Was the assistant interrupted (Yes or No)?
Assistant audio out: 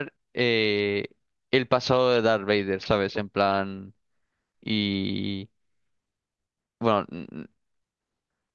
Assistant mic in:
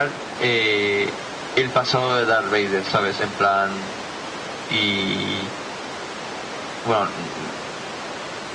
No